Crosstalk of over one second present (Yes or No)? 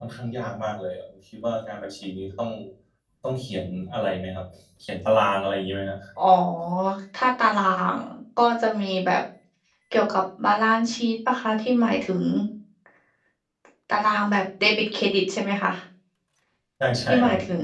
No